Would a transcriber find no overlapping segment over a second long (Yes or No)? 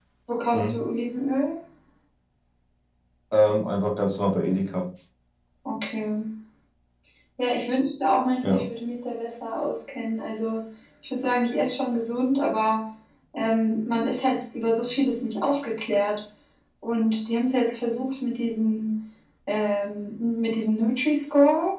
Yes